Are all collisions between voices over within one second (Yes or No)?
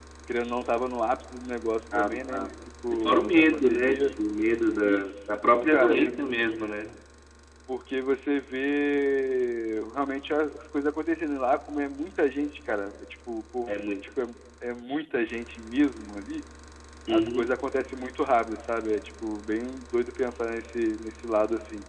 No